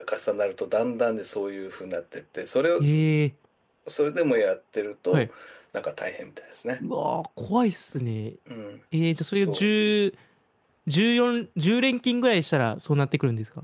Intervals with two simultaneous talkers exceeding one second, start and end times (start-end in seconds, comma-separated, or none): none